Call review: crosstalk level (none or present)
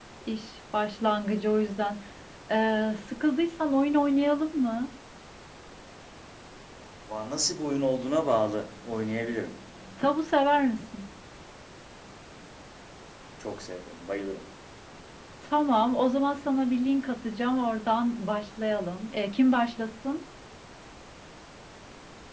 none